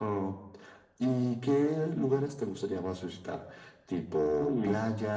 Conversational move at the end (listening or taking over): listening